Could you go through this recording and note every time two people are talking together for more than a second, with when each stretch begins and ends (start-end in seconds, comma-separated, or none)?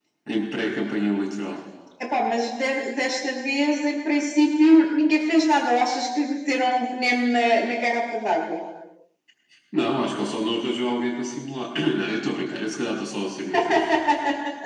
none